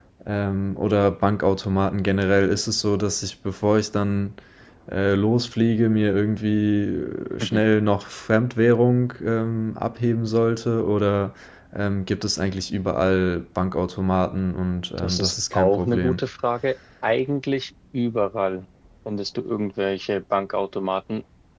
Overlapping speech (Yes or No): Yes